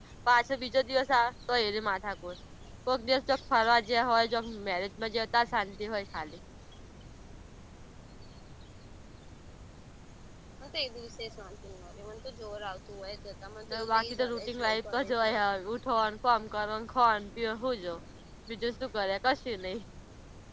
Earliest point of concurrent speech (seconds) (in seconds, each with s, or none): 13.7 s